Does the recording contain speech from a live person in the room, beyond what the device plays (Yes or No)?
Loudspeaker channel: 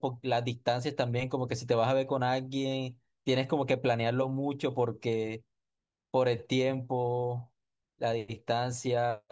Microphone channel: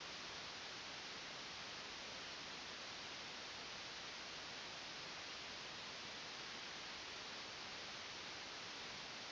No